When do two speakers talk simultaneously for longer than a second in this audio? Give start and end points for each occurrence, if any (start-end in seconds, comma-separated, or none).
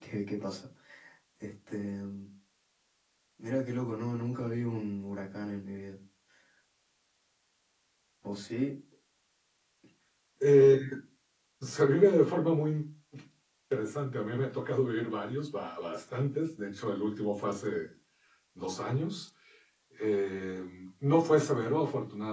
none